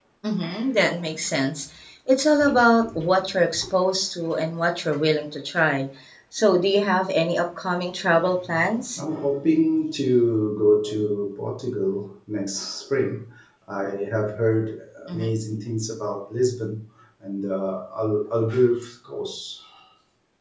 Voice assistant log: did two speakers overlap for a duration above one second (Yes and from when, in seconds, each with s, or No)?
No